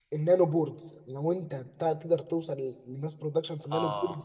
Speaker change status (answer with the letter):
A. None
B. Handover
A